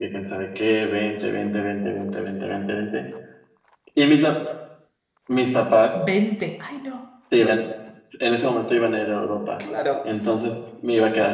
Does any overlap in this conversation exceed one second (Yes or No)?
No